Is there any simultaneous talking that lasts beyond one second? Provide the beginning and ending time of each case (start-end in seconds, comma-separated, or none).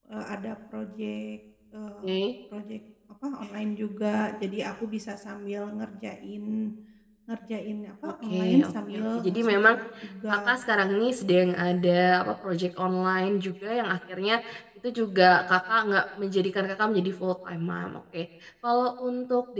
8.1-9.7